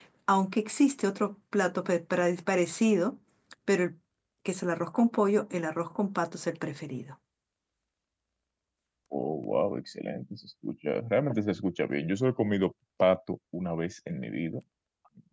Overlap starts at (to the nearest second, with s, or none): none